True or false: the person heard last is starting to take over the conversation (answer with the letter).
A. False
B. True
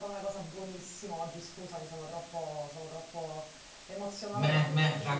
B